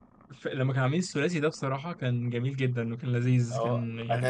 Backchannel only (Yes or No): No